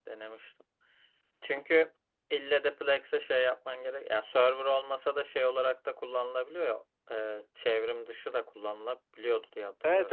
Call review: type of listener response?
taking over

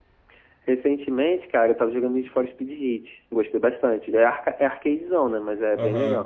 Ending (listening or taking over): taking over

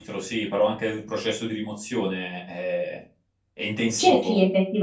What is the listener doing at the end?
taking over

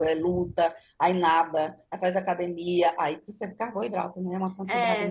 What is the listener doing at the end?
taking over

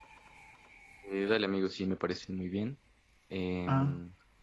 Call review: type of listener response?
listening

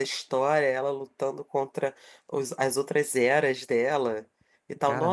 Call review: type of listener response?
listening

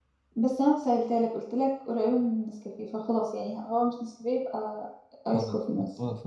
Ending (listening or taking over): taking over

